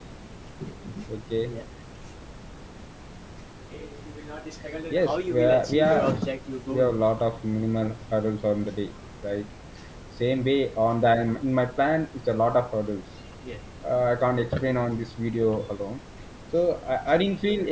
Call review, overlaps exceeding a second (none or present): present